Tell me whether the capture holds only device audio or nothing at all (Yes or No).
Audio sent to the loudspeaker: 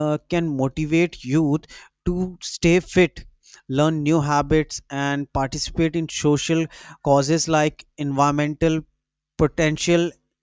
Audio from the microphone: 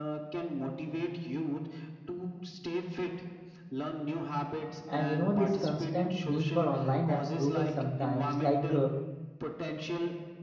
No